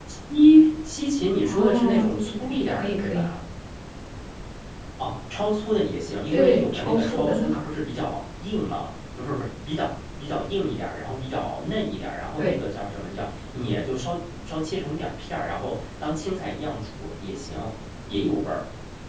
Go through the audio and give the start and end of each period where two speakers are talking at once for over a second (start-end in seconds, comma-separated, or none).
1.4-3.3, 6.3-7.7